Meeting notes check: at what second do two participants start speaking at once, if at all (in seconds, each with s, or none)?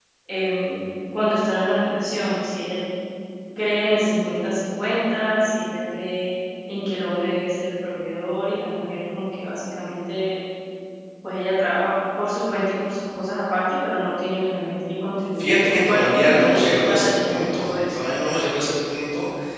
15.4 s